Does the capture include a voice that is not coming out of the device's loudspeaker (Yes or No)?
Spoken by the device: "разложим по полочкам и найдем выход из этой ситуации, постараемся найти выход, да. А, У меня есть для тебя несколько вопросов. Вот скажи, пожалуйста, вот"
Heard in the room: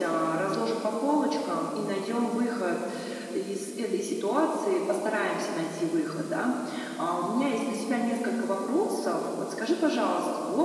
No